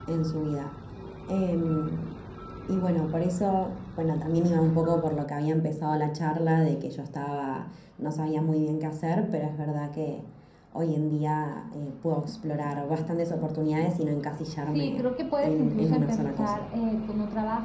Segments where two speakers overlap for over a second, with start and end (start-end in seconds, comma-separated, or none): 15.4-16.6